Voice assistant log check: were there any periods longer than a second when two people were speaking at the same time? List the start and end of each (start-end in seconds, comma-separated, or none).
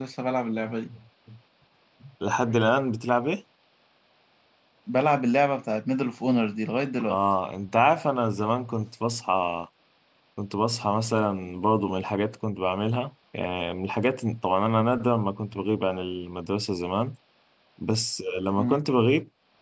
none